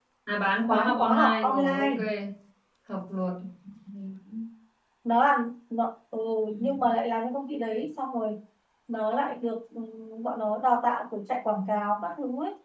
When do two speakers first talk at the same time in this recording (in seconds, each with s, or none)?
0.7 s